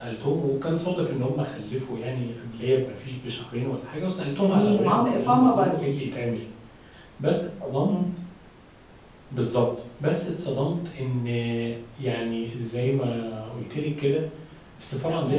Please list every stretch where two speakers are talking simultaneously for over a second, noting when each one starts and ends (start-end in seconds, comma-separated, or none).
4.4-5.7